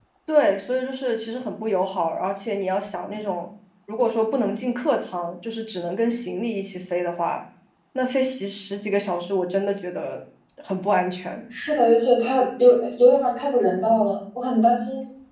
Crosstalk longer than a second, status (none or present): none